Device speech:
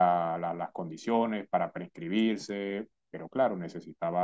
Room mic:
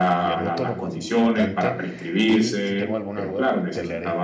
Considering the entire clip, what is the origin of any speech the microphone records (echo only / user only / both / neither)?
both